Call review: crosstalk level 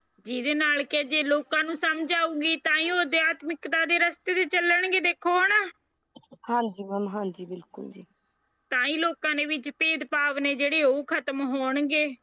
none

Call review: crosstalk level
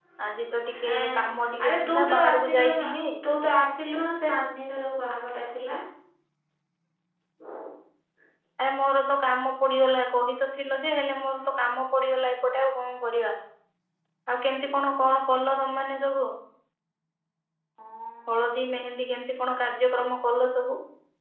present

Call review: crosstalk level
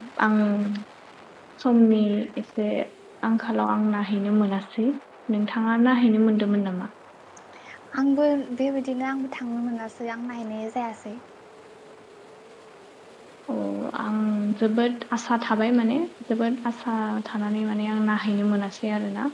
none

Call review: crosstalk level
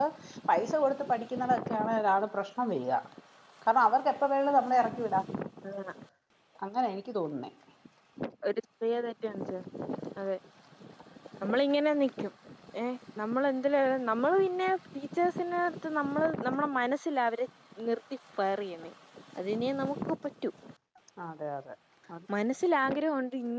none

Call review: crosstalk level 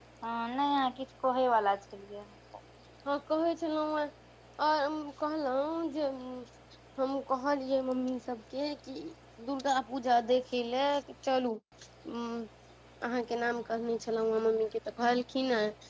none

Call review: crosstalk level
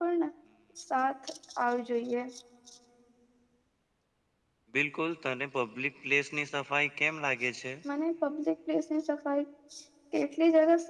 none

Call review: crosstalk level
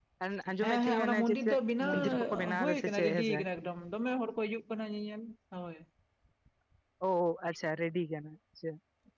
present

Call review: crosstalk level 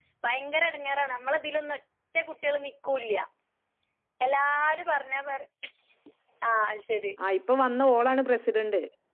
none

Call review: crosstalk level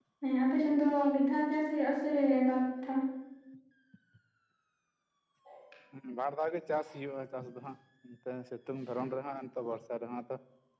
none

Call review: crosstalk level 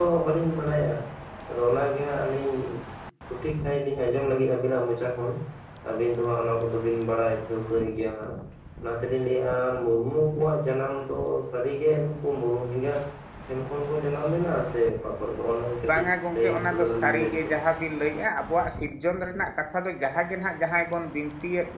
present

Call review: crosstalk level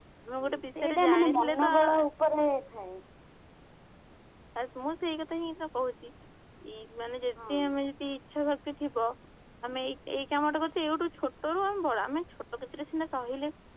present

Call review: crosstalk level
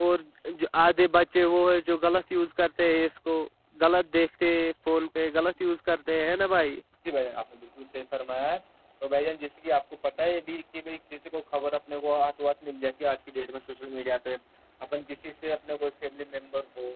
none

